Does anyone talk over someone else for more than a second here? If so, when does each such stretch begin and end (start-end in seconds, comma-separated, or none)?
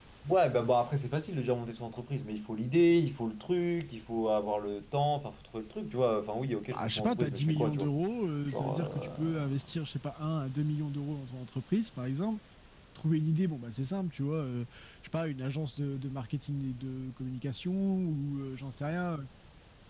6.7-7.9, 8.5-9.7